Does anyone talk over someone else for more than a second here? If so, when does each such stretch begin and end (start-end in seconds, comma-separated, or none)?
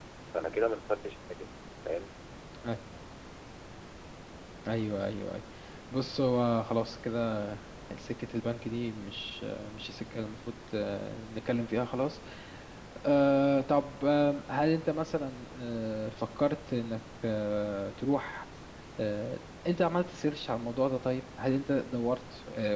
none